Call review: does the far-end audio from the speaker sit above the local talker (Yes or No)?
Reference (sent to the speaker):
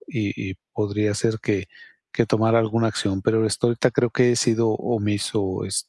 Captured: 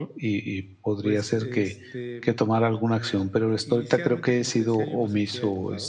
Yes